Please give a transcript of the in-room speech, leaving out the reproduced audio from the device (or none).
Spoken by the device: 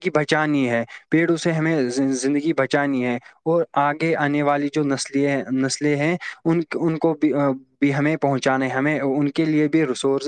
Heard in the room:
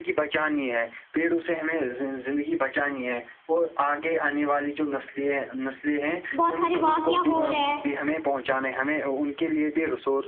بہت سارے واقعہ ہو رہے ہیں